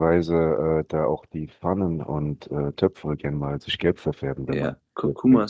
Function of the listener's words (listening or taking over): taking over